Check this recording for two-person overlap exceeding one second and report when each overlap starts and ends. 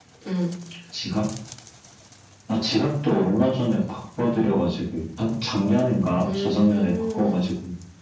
6.2-7.4

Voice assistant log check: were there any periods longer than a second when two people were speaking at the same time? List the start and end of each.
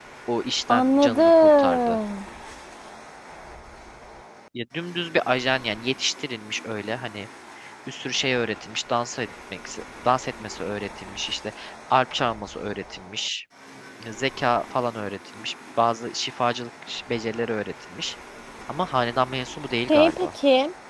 0.7-2.0

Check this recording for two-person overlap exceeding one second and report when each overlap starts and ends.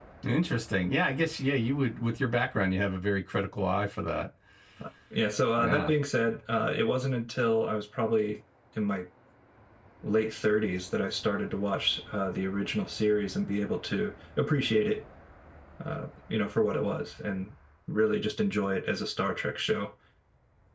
none

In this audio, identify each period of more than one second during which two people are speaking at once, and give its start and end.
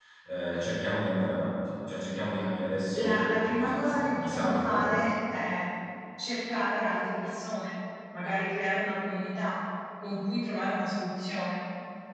2.9-4.9

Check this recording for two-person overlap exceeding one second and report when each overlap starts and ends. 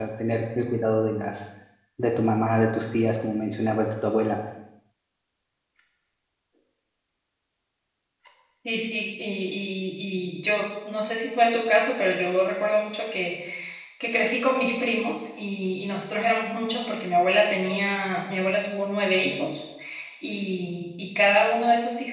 none

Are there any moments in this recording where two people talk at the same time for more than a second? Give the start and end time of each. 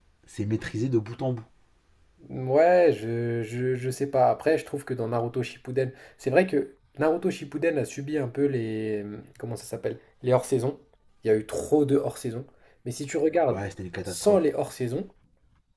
none

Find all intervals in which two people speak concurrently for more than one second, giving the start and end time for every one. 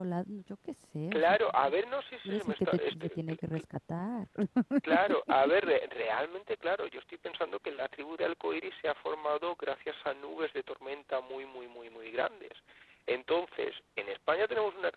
2.3-3.6

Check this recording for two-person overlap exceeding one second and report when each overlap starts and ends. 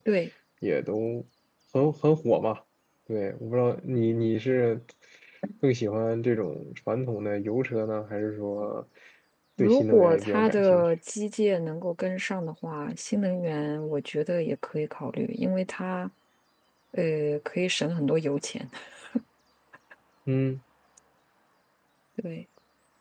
9.6-10.8

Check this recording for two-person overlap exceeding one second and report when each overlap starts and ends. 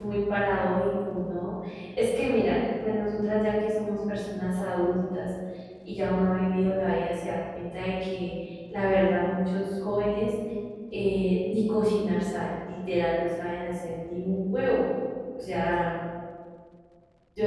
none

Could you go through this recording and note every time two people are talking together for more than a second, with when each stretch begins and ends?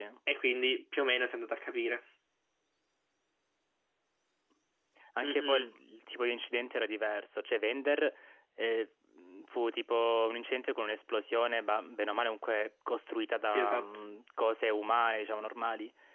none

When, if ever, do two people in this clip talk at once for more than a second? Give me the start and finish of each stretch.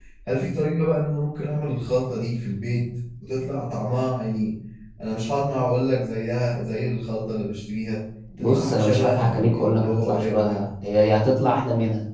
8.4-10.7

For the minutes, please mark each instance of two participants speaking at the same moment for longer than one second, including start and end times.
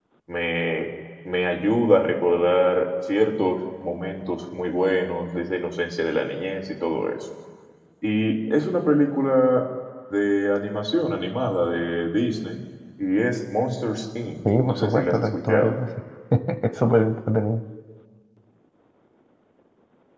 14.4-15.8

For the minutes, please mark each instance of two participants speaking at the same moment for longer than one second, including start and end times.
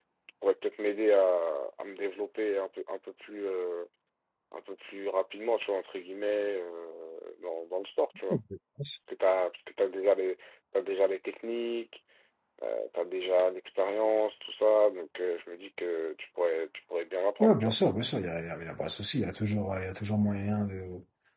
none

